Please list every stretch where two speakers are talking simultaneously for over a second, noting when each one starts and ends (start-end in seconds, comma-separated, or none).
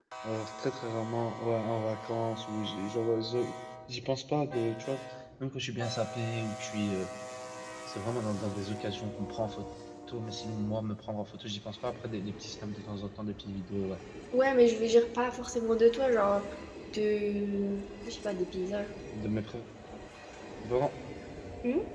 none